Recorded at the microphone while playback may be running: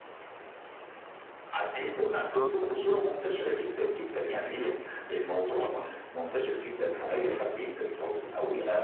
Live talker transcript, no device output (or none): آه ترانزيت،